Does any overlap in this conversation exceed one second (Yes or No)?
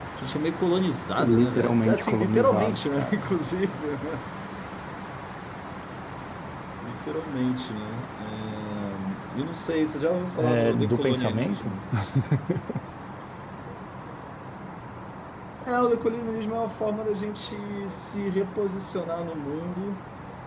Yes